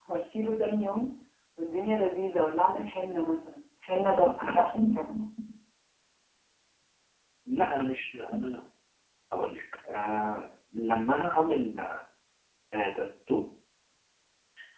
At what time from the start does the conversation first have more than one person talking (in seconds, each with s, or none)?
none